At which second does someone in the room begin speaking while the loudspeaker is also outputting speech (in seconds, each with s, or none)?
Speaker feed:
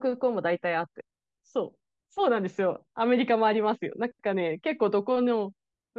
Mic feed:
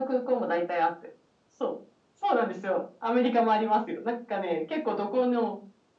none